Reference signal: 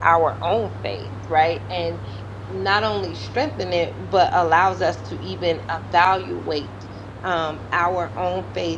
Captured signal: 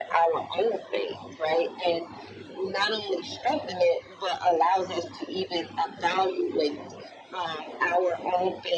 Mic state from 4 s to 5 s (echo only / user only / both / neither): echo only